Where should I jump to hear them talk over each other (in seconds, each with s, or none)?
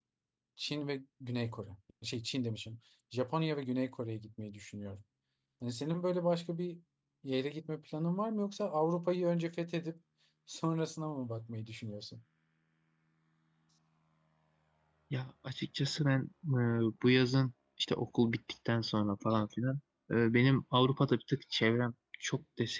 none